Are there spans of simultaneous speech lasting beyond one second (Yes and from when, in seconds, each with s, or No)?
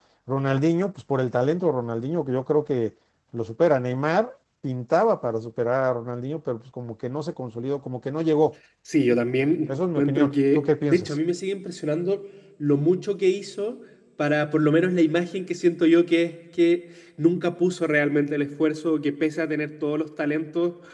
Yes, from 9.7 s